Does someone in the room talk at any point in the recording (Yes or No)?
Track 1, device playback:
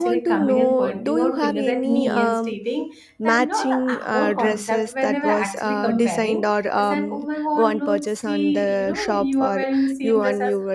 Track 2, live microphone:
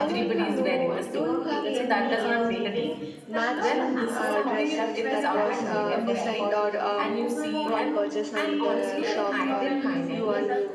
Yes